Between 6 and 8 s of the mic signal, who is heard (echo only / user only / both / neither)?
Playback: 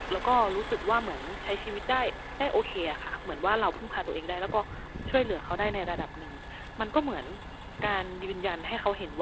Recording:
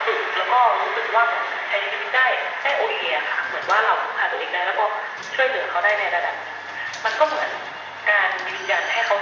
echo only